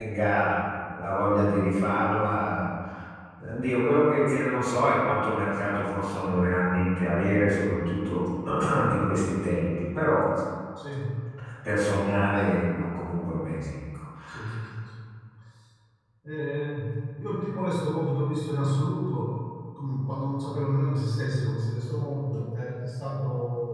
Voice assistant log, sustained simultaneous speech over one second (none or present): none